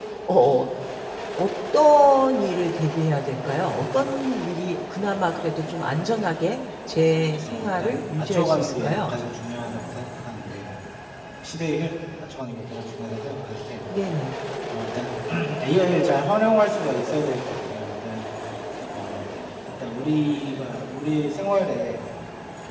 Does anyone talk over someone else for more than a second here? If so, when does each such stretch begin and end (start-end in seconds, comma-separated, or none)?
7.5-9.1